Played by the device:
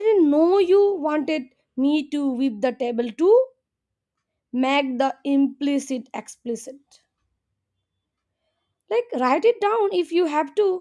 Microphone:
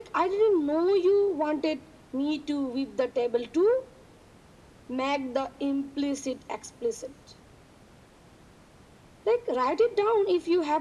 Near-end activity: none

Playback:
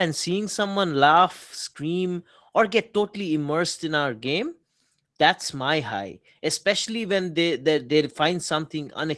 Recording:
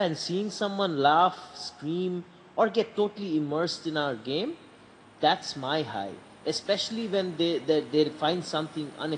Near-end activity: none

